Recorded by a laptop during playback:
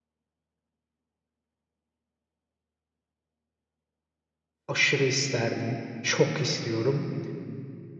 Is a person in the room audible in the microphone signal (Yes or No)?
Yes